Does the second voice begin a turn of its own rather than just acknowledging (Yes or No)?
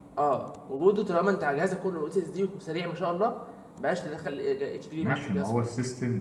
Yes